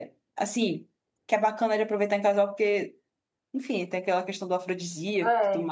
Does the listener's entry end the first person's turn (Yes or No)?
Yes